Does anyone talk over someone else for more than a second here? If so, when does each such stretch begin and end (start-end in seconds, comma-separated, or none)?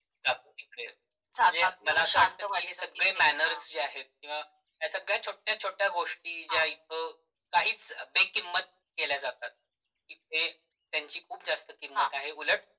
1.4-3.6